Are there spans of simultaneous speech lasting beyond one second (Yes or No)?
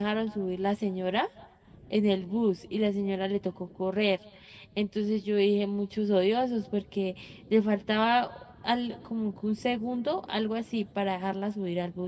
No